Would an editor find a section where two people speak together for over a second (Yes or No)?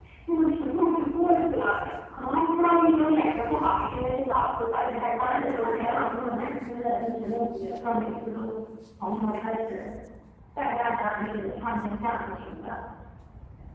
Yes